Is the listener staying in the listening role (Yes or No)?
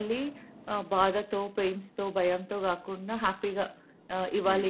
Yes